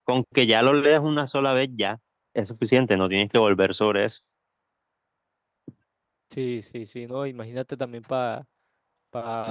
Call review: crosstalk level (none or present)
none